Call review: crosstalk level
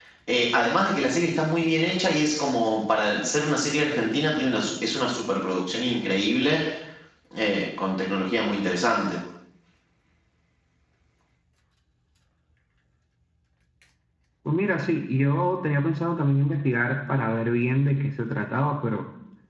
none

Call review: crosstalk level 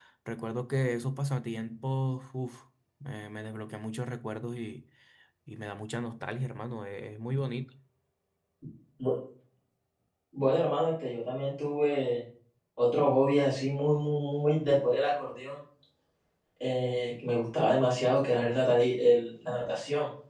none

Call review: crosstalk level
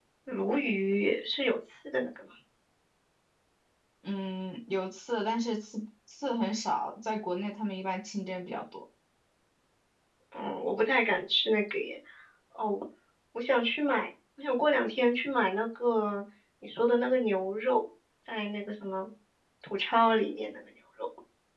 none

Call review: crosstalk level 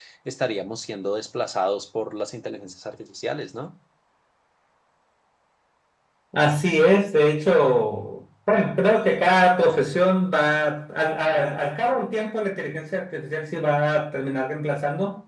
none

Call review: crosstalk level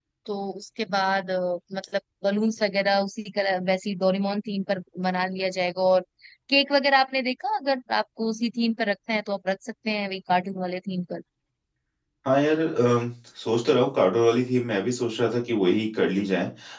none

